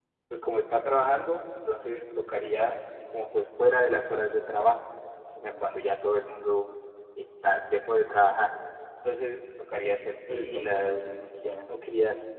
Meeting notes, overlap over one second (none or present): present